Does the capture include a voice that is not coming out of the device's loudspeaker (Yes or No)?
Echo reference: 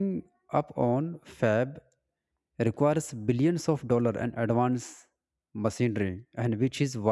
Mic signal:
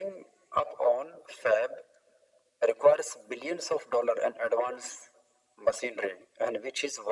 No